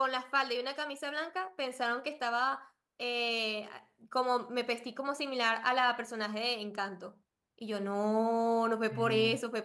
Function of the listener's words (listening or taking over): listening